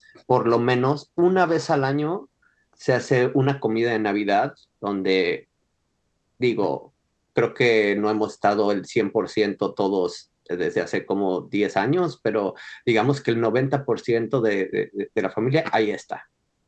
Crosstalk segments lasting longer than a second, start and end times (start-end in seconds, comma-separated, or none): none